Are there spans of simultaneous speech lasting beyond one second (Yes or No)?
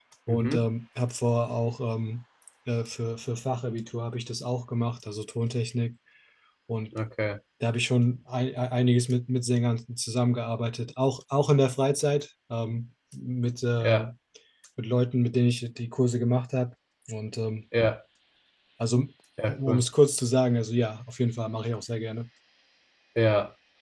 No